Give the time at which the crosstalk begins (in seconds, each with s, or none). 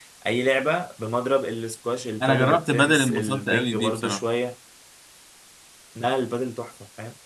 2.2 s